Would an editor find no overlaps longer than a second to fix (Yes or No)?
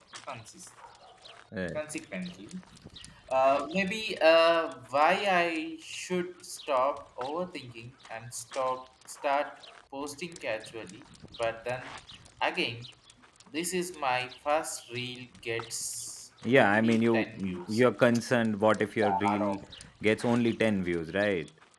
No